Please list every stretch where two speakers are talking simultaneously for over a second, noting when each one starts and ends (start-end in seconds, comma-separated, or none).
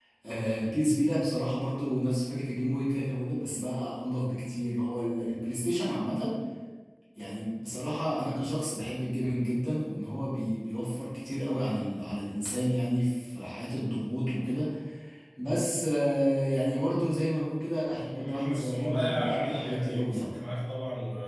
18.1-20.3